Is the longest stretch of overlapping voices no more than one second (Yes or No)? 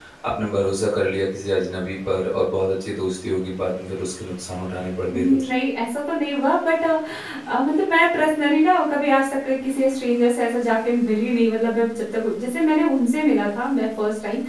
Yes